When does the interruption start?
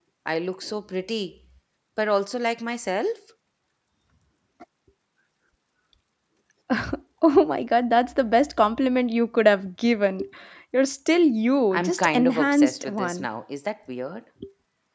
11.7 s

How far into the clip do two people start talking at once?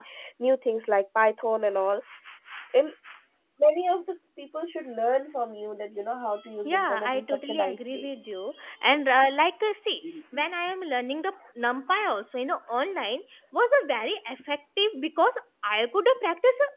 6.6 s

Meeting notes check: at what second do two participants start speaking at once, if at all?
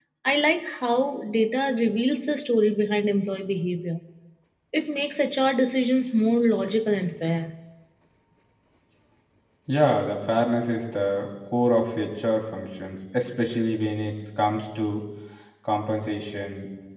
none

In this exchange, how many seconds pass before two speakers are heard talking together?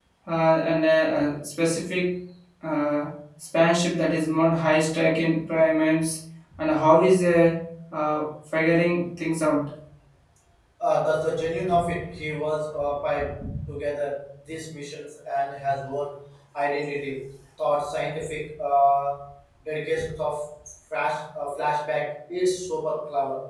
none

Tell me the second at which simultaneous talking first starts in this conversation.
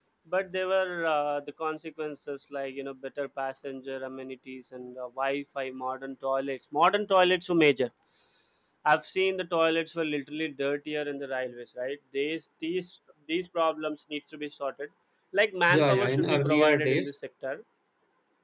15.7 s

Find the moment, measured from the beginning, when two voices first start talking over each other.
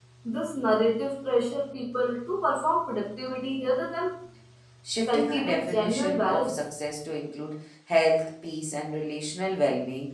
5.1 s

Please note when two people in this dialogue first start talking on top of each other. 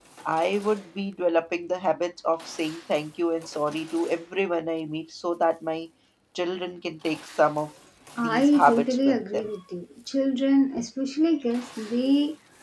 8.2 s

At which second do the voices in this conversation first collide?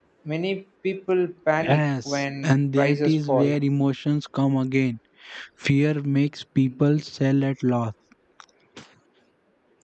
1.6 s

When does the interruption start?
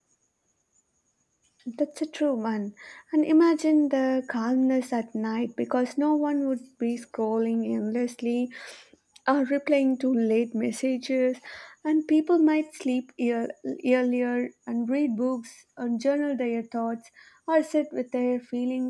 none

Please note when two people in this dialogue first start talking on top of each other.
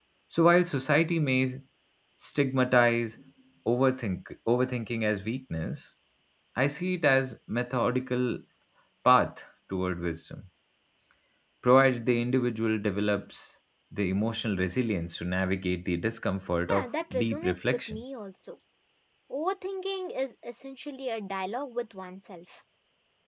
16.7 s

